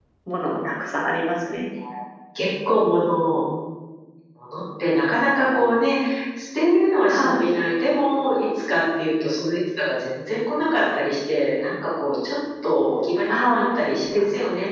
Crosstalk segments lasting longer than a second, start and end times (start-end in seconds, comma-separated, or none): none